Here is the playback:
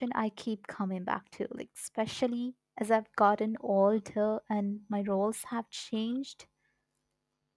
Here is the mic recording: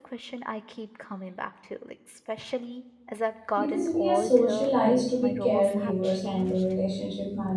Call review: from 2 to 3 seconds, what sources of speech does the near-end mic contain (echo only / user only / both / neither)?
echo only